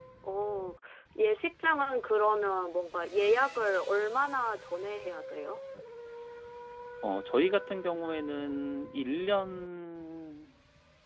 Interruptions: none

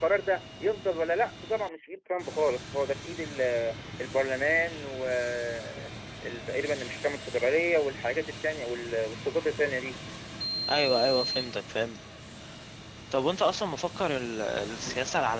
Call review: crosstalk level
none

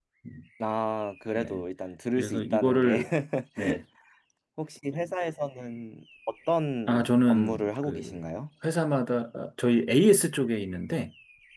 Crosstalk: present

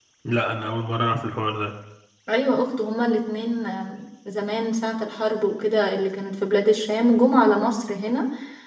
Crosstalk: none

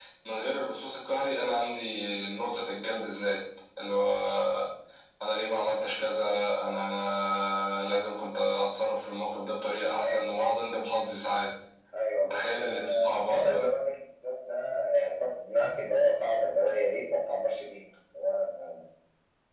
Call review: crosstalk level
present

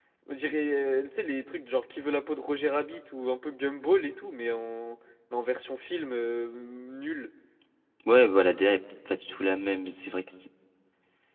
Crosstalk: none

